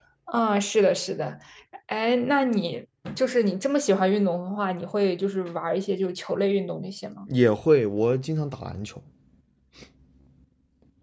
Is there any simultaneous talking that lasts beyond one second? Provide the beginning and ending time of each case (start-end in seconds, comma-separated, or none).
none